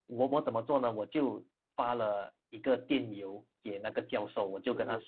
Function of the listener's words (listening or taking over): listening